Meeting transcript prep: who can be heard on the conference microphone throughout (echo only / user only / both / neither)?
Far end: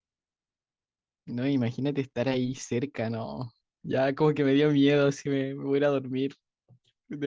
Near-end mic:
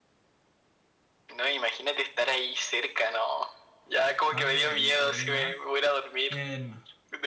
both